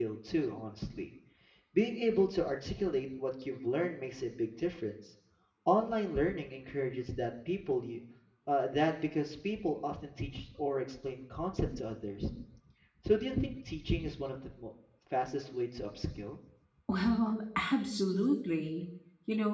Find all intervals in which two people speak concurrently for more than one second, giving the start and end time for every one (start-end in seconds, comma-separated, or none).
none